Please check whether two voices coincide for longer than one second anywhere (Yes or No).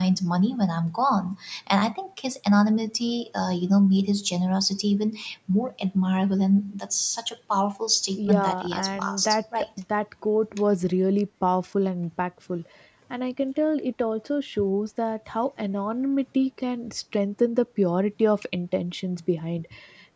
Yes